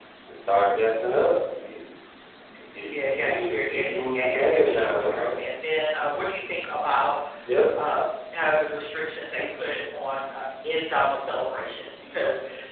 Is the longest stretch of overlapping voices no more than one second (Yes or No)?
No